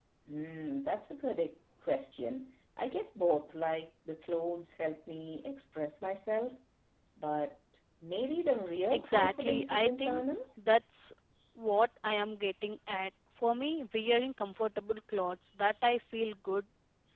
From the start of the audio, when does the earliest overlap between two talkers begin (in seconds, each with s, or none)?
8.9 s